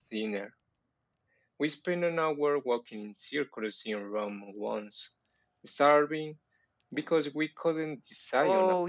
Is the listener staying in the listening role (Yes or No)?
No